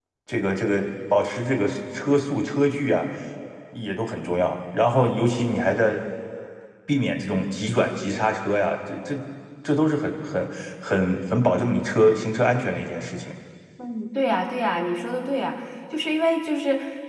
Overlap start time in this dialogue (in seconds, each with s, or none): none